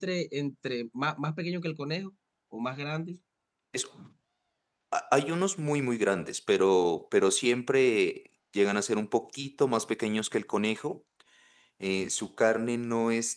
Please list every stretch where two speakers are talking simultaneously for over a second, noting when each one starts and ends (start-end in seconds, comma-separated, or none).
none